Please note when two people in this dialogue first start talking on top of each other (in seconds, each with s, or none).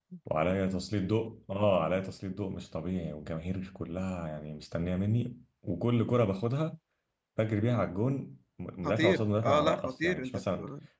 8.8 s